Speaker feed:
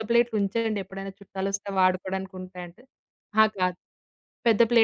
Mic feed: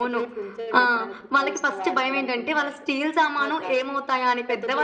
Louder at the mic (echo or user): user